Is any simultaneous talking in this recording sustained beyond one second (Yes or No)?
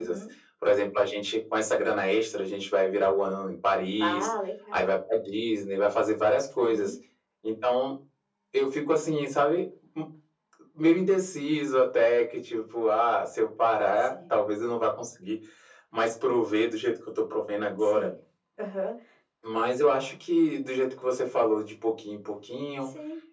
No